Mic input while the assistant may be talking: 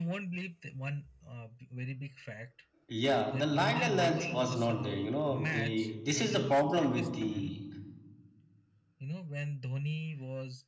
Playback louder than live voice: No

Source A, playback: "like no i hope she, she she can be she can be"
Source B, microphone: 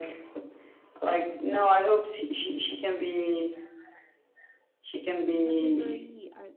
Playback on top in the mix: Yes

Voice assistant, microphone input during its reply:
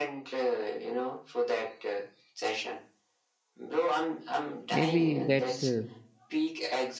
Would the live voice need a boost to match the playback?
No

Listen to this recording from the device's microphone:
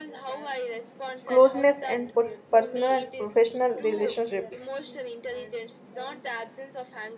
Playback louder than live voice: No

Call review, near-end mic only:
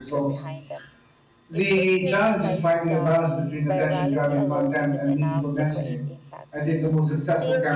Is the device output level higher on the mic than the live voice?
No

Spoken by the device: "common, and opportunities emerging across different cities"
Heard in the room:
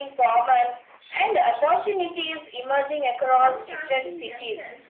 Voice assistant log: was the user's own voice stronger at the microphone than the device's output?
No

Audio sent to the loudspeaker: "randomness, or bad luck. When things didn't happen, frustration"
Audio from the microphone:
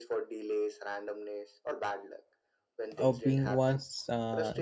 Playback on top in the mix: No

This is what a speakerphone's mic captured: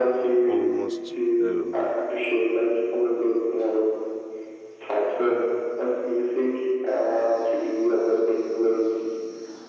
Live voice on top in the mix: No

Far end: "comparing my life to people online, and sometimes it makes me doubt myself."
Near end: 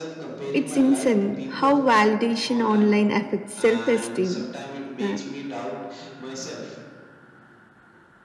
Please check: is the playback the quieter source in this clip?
Yes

